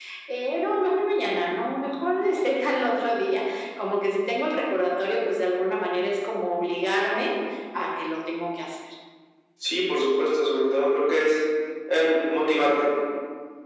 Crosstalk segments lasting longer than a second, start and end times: none

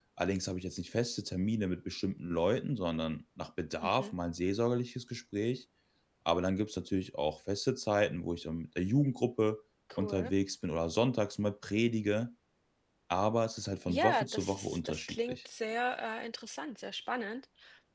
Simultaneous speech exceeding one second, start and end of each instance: 13.9-15.4

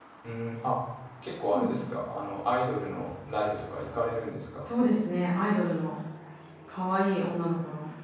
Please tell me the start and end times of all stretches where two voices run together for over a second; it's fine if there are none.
none

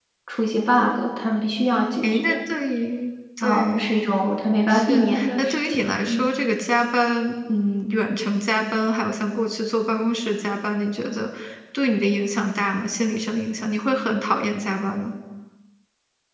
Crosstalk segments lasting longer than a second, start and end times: 4.7-6.3

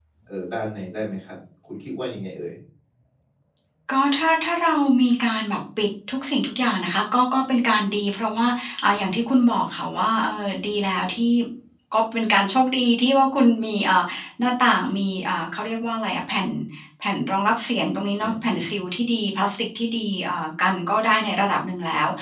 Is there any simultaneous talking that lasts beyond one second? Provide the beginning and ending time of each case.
none

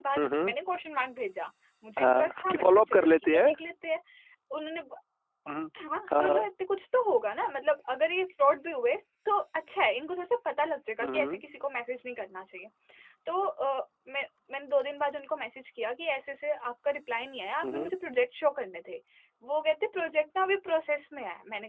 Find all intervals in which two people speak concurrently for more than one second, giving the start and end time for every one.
2.0-3.5

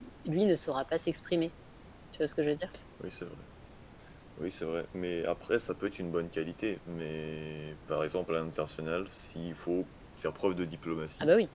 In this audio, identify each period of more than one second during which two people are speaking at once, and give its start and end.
none

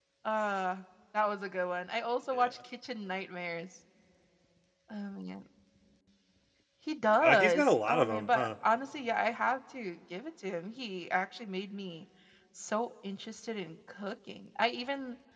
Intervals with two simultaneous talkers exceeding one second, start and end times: 7.2-8.5

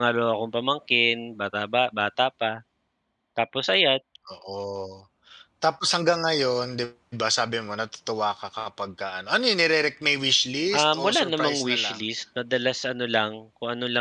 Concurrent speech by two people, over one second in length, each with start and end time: 10.7-12.0

